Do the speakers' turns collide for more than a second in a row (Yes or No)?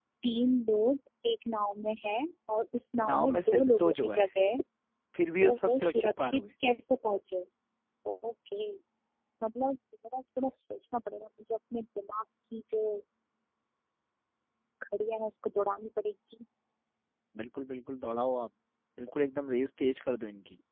Yes